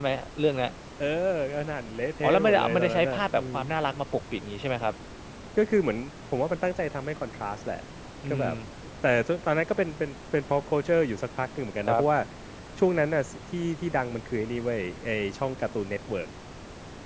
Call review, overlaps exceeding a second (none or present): present